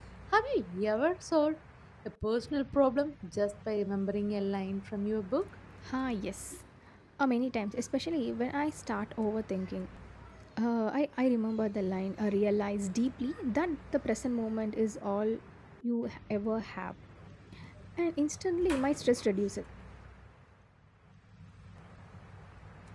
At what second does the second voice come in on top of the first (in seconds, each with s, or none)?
none